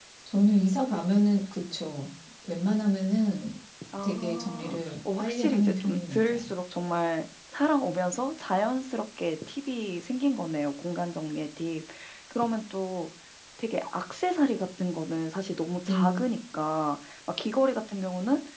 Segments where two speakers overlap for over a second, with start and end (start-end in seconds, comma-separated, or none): 4.0-6.5